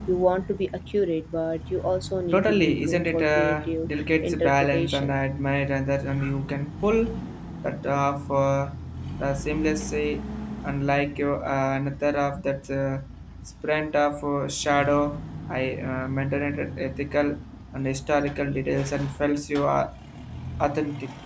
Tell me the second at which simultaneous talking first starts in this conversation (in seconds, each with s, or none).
2.3 s